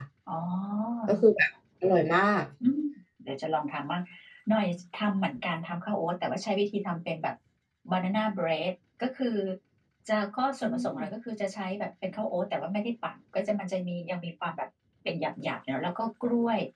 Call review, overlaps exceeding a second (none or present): none